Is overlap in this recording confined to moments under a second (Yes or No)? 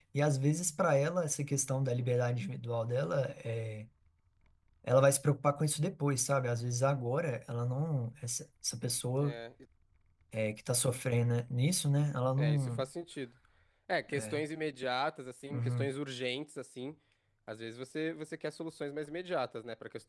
Yes